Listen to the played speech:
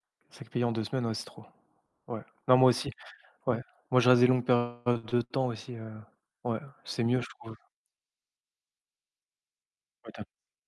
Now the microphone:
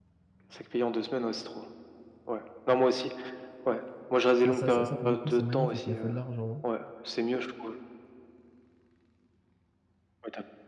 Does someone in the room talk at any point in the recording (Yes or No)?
Yes